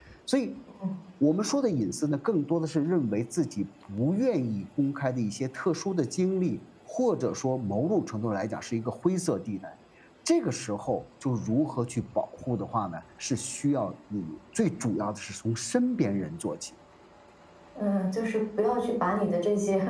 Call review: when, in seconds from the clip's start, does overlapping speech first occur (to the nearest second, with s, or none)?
none